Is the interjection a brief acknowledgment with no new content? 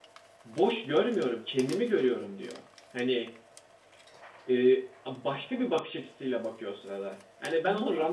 Yes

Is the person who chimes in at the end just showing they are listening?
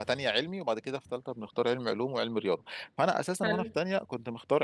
Yes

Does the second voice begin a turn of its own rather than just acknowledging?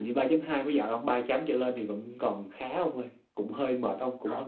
No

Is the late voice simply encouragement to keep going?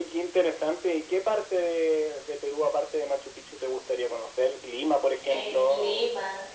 No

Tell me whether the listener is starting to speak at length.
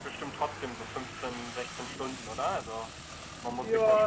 Yes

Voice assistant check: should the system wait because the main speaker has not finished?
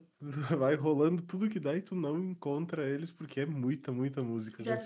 No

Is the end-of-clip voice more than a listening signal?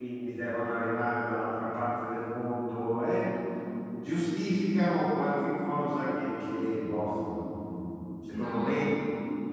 No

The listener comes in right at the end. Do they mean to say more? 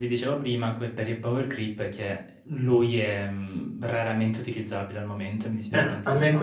Yes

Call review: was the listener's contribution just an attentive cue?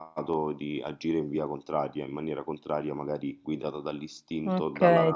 No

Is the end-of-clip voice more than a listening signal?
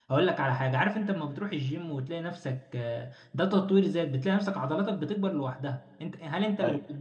No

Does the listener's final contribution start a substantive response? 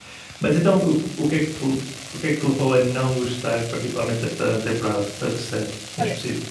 Yes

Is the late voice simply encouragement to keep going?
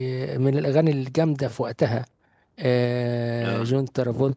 Yes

